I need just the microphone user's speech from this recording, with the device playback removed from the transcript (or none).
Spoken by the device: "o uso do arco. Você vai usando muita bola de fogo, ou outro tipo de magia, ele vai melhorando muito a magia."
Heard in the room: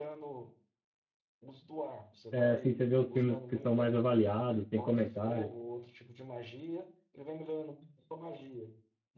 é, assim, você vê os filmes que são mais avaliados, tem comentários.